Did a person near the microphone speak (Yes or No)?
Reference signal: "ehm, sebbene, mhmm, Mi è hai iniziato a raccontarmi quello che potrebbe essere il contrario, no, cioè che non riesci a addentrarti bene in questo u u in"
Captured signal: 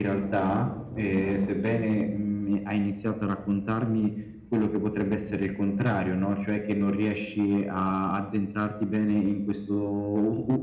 No